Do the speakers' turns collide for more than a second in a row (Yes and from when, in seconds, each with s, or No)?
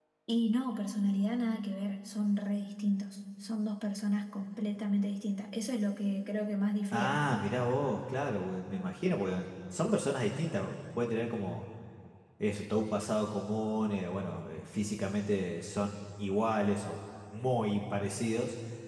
No